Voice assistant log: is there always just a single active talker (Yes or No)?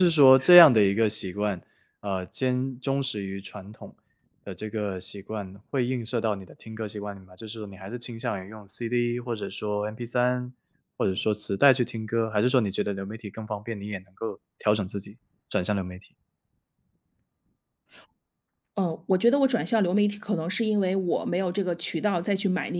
Yes